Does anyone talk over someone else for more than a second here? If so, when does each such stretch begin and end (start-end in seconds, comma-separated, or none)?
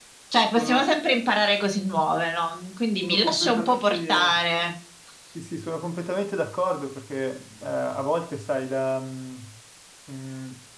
3.0-4.4